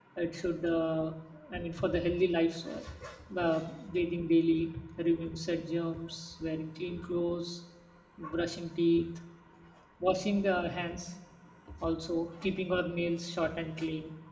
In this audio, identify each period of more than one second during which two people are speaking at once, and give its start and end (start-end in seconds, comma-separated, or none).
none